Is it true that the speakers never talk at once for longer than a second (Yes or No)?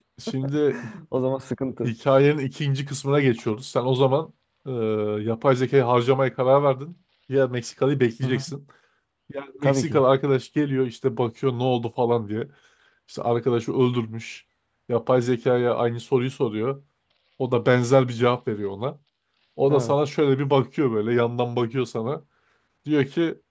Yes